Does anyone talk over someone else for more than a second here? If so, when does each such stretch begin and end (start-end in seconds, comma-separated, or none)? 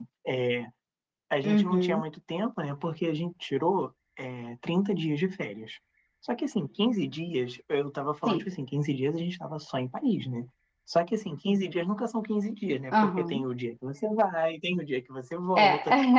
none